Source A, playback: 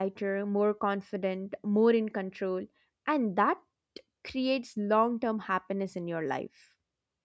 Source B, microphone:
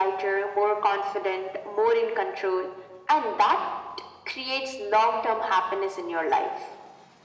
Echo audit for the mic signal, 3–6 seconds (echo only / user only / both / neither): echo only